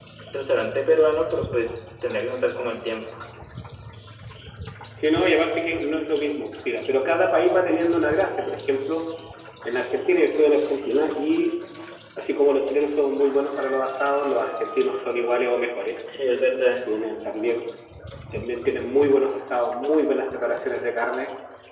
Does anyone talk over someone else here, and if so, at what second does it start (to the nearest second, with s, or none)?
none